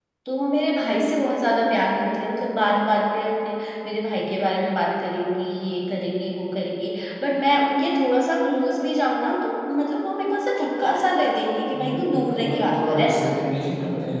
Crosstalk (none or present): present